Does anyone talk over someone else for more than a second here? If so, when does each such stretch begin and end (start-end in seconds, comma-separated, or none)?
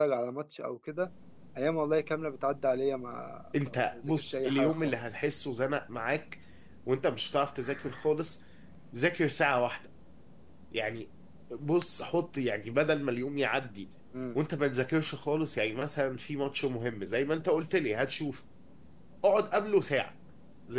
3.7-5.0